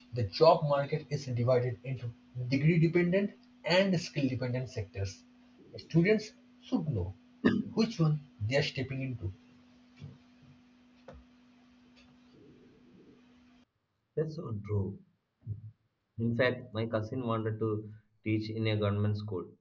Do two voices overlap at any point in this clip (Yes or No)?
No